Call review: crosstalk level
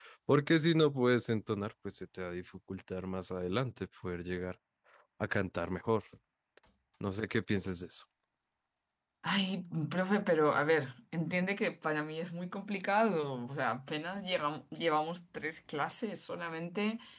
none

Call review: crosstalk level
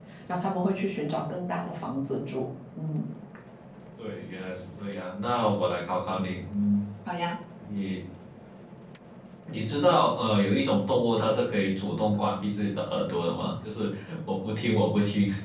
none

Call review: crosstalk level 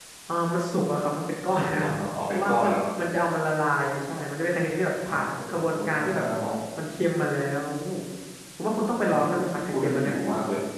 present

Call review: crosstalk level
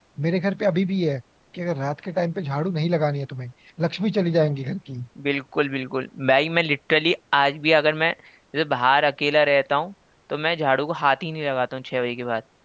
none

